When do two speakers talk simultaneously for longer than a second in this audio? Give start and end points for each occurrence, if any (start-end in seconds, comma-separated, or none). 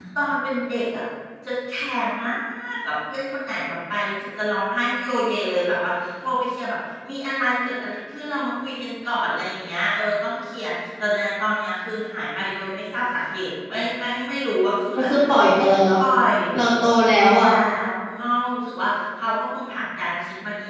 none